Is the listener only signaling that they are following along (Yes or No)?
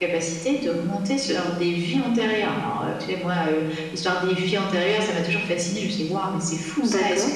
Yes